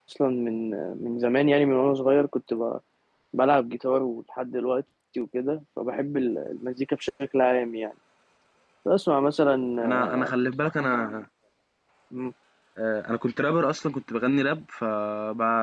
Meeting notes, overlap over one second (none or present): none